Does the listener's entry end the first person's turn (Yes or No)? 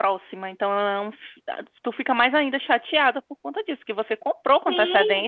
Yes